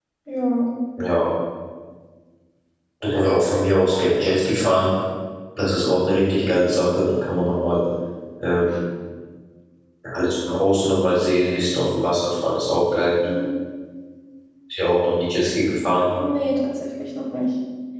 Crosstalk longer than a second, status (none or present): none